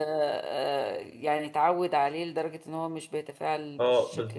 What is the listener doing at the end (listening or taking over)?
taking over